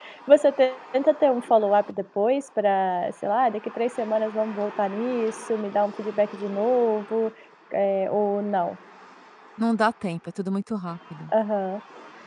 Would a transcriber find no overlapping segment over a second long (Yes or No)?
Yes